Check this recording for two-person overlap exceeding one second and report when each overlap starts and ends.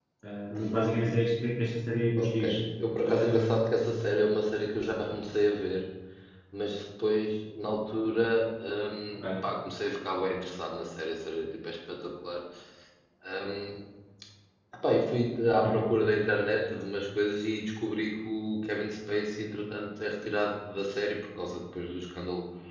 none

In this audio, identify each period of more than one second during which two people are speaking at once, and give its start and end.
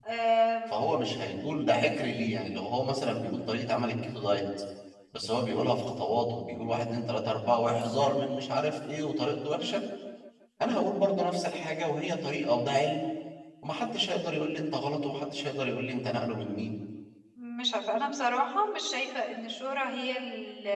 none

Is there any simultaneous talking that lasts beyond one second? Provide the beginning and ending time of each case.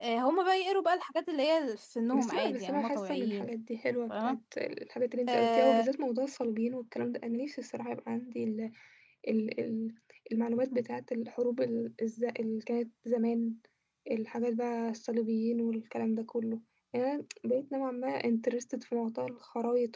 2.2-3.5

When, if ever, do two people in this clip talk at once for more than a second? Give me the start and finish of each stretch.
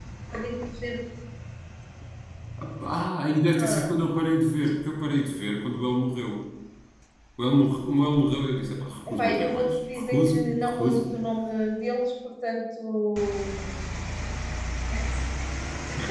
9.1-11.1

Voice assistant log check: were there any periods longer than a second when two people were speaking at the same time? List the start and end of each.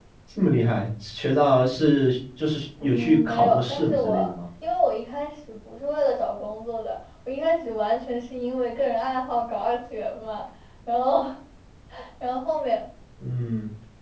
2.9-4.3

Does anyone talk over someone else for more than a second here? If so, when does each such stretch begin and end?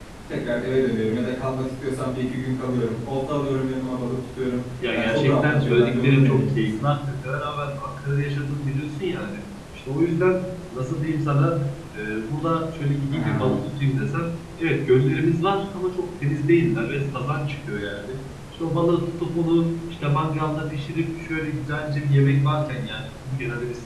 4.9-6.8

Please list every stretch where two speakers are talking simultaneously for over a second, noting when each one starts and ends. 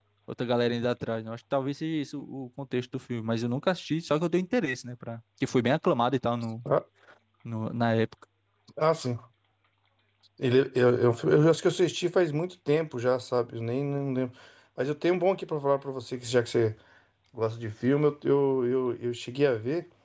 none

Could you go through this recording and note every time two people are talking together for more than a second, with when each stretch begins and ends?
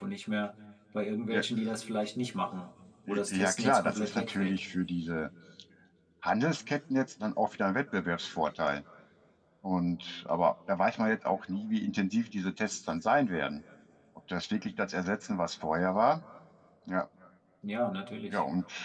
3.3-4.6

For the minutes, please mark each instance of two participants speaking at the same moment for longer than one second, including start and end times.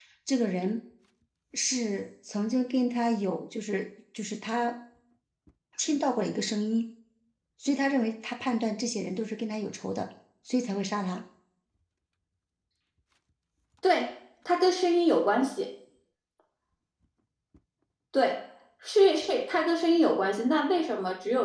none

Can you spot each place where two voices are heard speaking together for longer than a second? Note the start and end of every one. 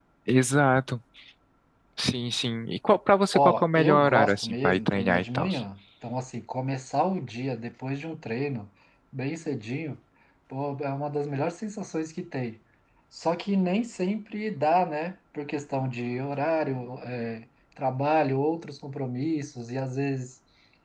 3.3-5.5

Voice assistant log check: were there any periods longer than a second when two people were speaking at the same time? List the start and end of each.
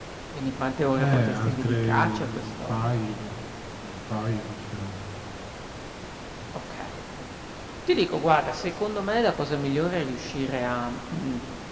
0.9-2.9

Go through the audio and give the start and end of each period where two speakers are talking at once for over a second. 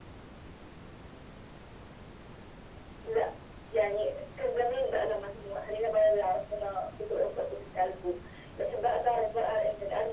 none

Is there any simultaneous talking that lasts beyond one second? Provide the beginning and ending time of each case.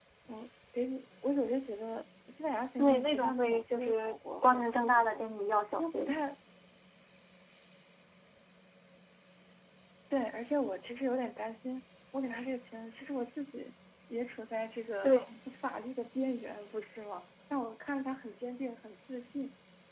2.8-5.2

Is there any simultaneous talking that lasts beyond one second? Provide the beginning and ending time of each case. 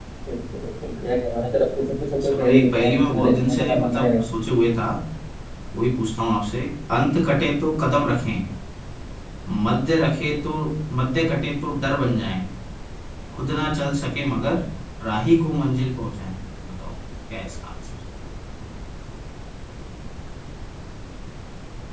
2.2-4.2

